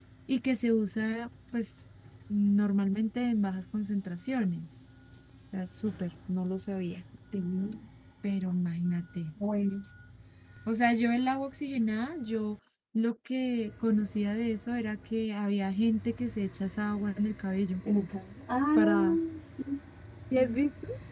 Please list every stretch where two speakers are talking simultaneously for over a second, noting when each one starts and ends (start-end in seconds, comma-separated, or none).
none